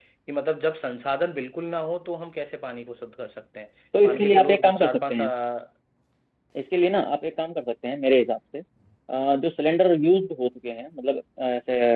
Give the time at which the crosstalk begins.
3.9 s

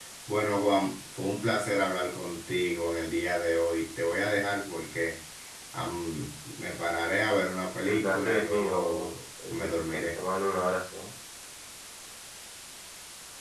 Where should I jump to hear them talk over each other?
7.9 s

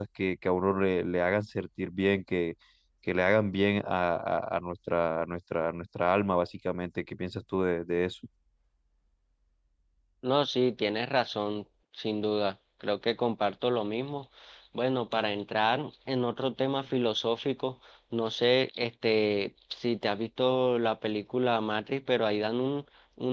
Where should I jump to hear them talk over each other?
none

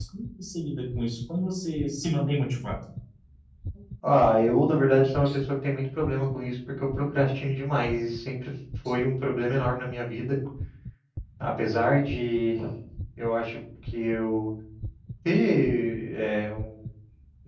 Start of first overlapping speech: none

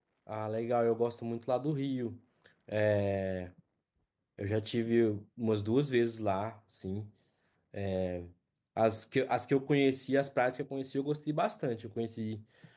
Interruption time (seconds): none

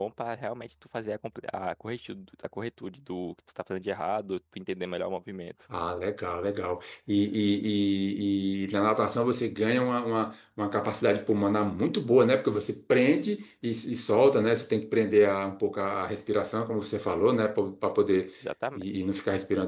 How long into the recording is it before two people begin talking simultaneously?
none

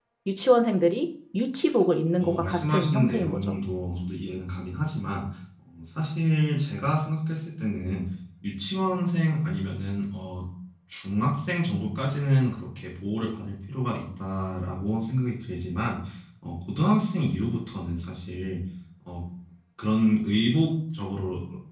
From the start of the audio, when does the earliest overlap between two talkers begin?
2.2 s

